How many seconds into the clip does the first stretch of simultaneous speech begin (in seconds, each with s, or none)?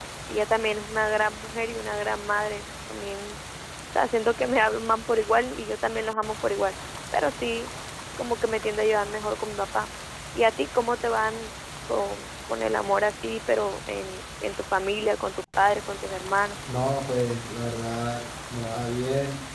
none